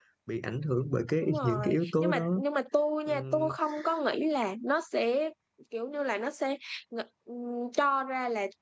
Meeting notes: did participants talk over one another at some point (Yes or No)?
Yes